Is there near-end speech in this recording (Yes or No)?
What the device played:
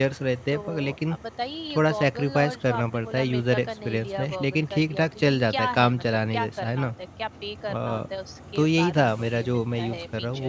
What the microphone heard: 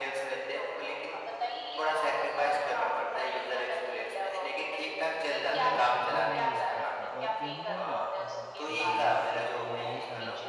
Yes